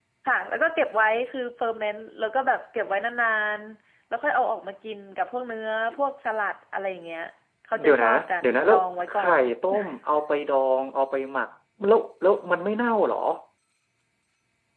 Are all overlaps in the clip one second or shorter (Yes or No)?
No